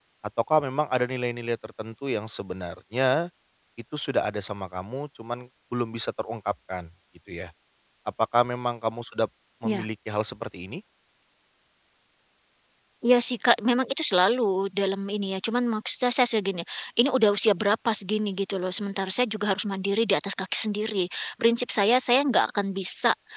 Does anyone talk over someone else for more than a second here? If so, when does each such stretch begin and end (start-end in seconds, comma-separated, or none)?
none